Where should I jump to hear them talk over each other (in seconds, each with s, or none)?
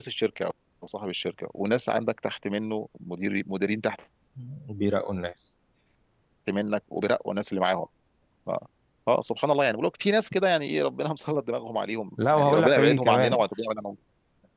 12.2 s